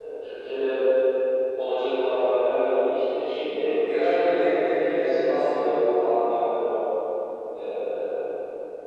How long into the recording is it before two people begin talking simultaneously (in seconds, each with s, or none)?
3.8 s